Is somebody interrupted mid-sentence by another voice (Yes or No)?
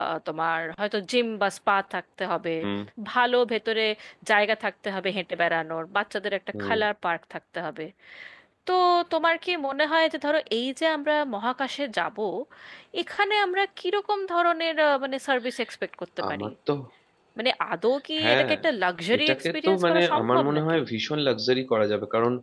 Yes